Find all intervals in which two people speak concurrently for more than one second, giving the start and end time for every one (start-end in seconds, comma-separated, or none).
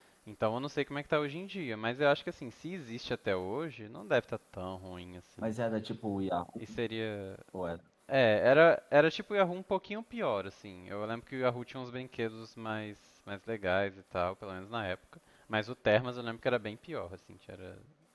none